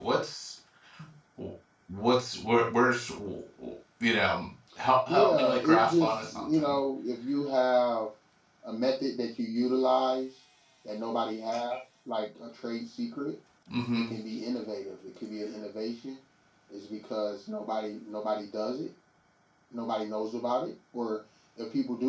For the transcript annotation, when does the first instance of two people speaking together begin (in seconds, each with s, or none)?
5.1 s